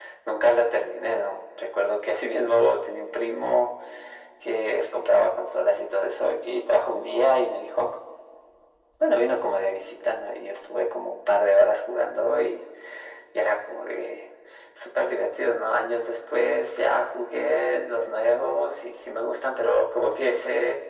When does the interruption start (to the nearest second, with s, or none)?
none